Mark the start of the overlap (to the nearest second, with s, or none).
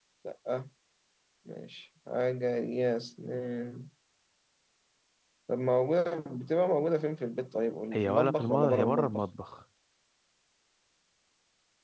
8 s